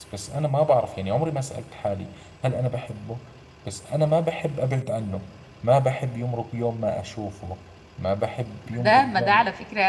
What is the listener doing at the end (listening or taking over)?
taking over